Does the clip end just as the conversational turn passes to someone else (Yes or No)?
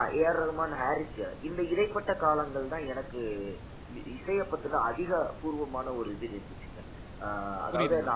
No